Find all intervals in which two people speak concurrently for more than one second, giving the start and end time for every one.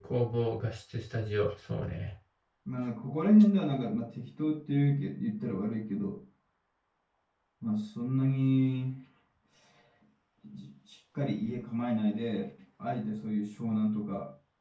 none

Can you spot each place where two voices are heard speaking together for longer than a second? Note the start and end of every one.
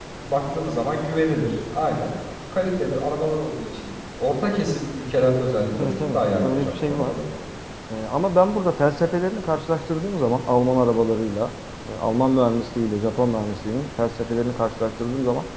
5.8-7.1

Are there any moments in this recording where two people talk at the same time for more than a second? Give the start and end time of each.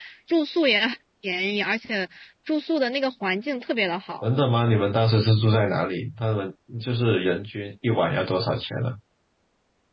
none

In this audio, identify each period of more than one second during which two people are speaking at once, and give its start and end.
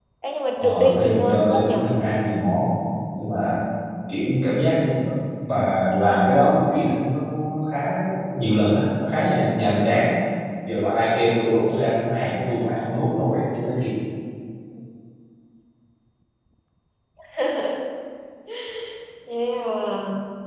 0.6-1.8

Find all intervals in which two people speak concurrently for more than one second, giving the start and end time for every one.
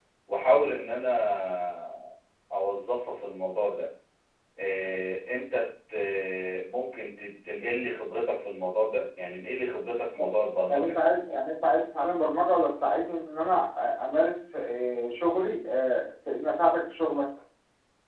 none

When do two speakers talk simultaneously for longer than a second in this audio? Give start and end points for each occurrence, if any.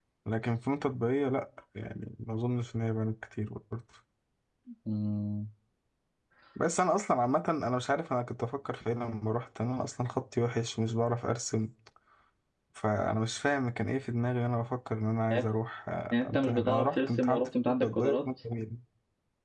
16.1-18.3

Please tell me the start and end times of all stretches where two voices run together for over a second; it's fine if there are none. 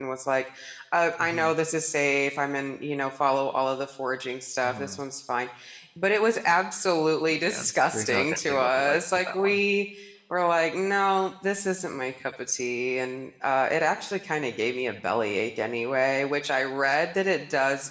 7.4-9.6

